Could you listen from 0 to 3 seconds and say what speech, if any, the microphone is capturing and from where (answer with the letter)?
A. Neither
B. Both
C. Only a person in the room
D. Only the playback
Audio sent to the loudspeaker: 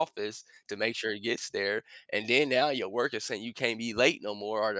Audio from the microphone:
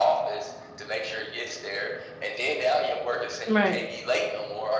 D